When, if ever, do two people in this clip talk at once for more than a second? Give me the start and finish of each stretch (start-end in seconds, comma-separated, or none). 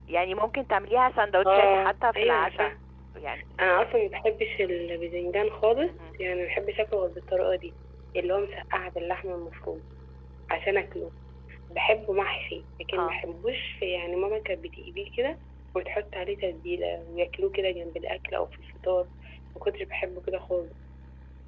1.4-2.7